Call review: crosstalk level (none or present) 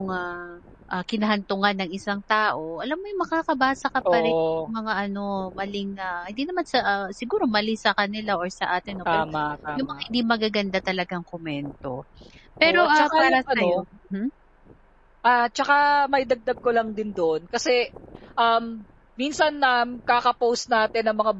present